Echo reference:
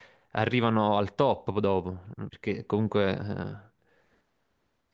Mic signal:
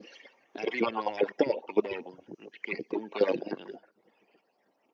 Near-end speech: none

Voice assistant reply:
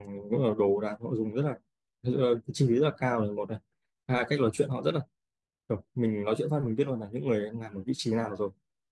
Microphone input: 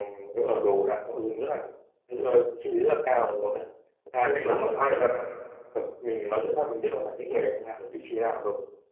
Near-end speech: present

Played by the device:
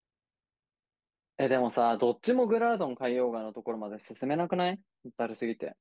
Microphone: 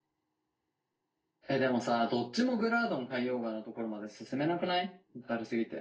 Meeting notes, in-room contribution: none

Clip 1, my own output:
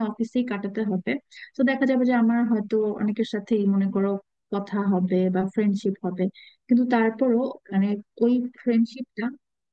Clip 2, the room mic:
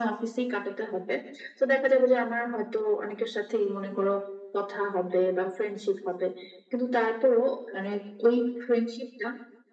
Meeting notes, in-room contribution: none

